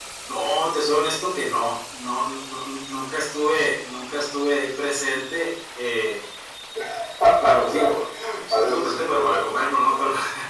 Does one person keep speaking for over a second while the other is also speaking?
Yes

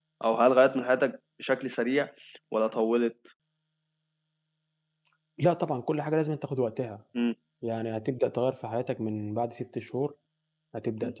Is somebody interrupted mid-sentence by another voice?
No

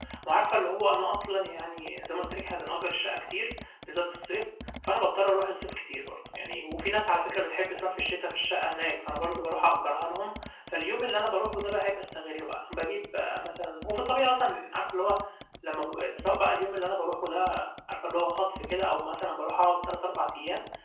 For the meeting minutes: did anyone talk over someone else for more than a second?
No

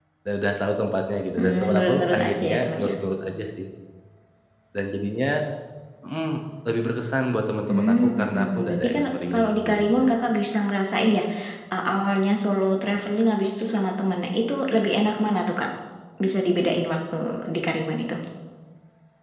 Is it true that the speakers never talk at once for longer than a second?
No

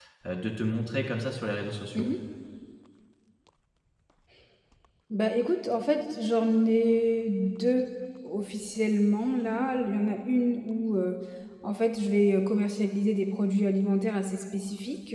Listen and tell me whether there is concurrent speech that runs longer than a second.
No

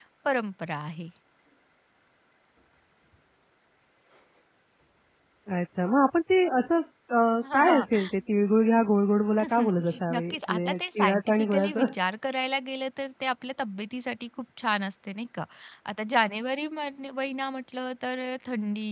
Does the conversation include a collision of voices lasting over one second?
Yes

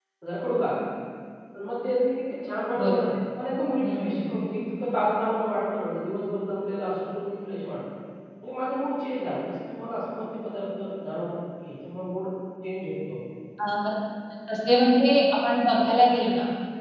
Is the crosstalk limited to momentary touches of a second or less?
Yes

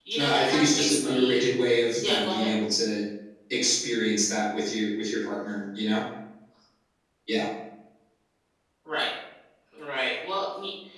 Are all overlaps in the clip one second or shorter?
No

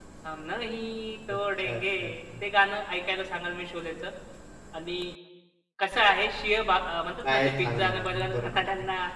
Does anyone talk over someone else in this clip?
Yes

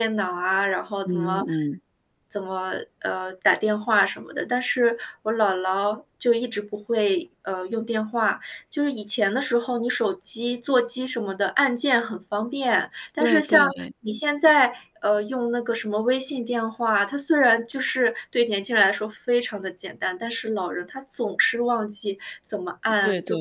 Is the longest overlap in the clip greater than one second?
No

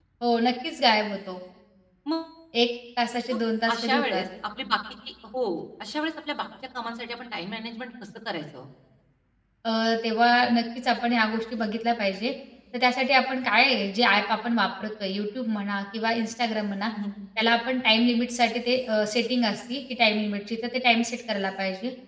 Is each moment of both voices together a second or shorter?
Yes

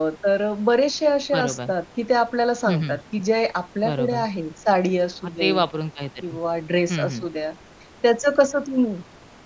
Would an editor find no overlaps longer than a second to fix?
Yes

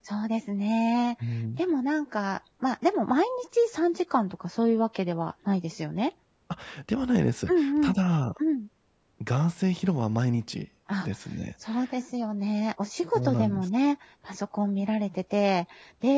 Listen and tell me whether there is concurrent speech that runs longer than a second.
No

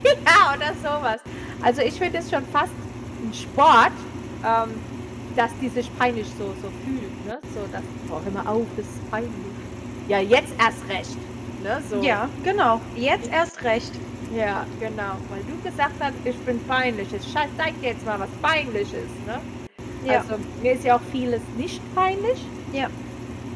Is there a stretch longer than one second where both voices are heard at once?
No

